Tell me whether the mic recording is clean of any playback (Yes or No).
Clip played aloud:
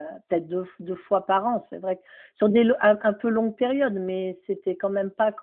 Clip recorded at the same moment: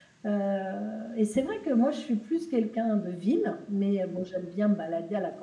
Yes